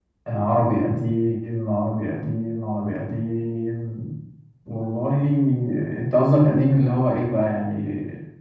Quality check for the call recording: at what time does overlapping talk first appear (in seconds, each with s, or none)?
none